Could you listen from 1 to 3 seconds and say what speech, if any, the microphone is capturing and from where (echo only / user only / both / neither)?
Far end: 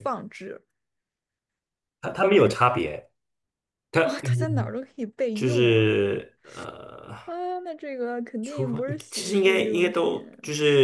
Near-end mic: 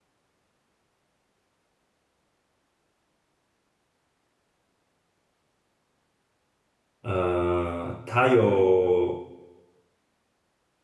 neither